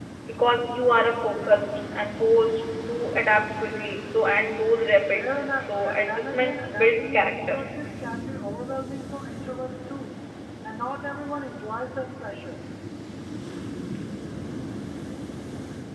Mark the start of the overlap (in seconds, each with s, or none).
5.6 s